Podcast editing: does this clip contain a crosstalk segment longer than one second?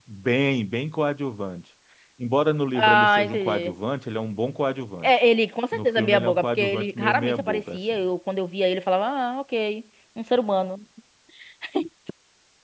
Yes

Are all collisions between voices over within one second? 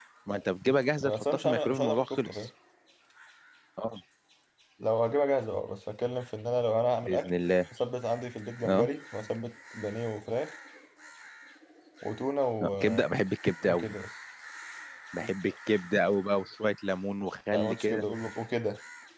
No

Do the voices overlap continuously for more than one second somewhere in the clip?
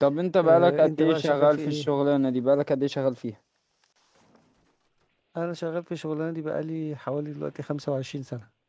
Yes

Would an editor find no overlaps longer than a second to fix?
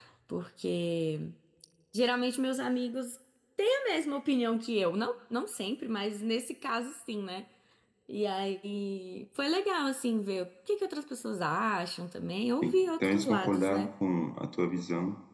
No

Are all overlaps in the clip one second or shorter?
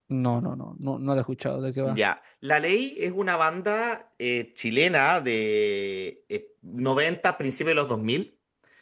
Yes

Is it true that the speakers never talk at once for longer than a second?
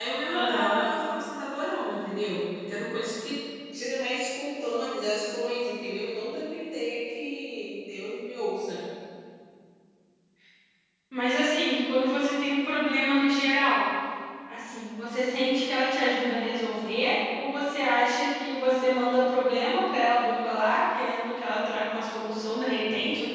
Yes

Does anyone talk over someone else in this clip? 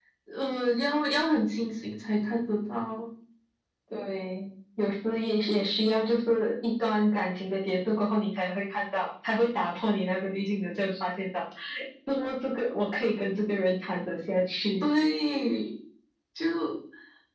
No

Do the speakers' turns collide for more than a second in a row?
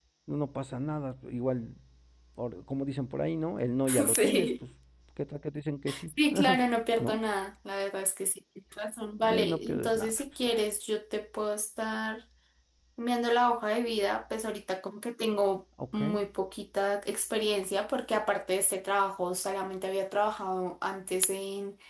Yes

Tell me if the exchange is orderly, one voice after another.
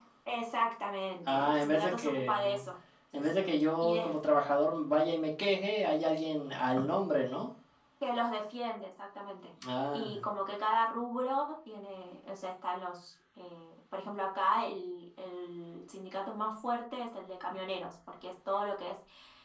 No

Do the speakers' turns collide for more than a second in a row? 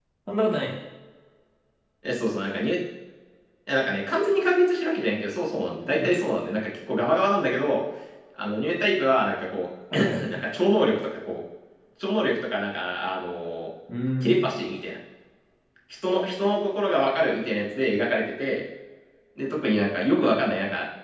No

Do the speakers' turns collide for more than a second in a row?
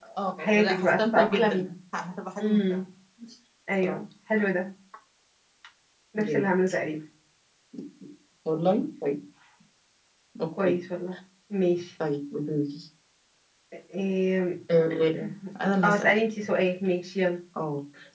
Yes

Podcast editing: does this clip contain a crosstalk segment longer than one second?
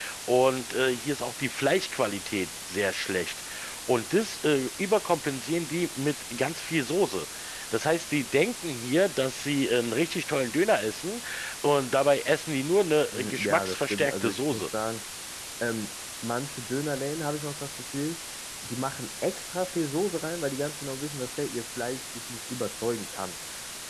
Yes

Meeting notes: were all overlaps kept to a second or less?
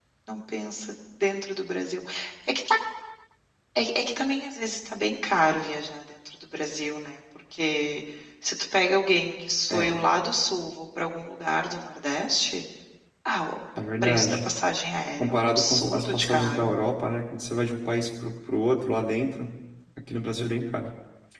No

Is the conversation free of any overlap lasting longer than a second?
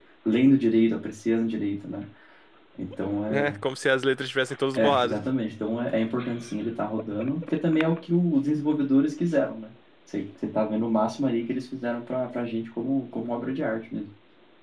Yes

